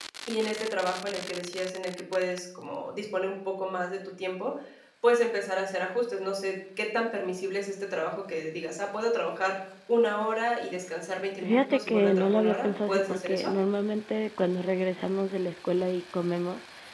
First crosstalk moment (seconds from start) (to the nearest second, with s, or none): 11 s